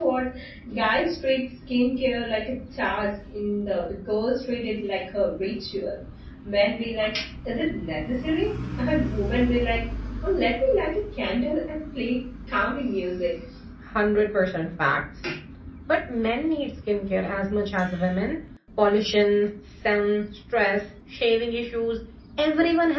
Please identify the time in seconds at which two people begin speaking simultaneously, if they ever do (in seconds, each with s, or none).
none